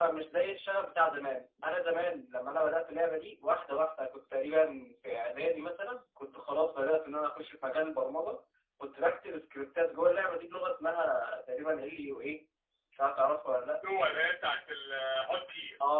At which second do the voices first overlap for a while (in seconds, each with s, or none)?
none